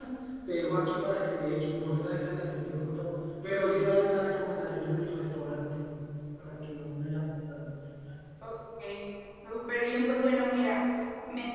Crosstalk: none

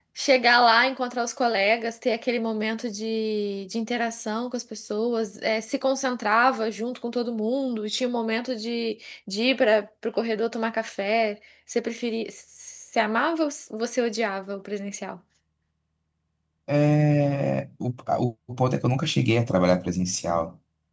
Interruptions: none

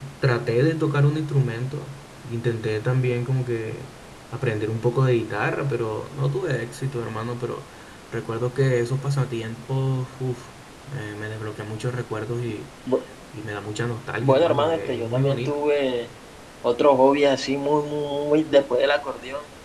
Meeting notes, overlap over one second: present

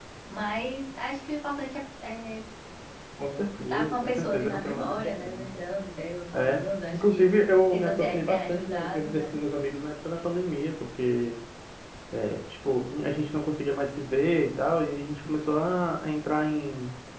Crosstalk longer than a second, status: present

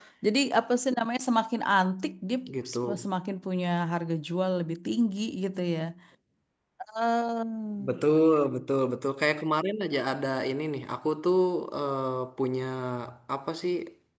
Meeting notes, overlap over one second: none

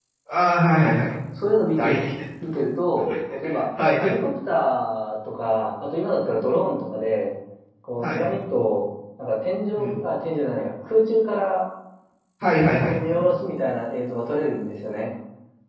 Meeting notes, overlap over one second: none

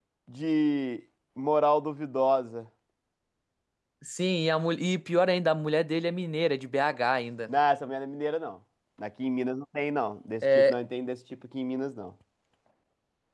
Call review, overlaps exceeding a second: none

